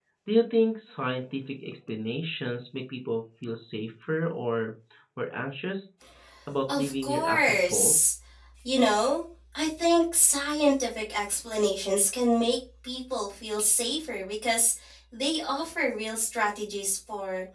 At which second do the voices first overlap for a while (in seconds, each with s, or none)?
6.7 s